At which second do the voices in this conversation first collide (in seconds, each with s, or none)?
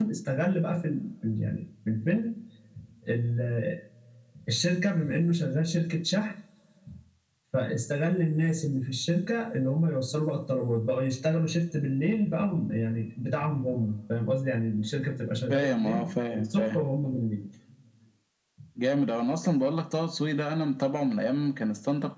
15.5 s